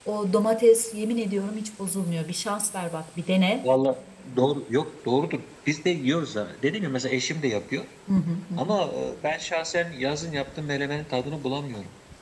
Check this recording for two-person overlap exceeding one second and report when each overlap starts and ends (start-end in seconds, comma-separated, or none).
none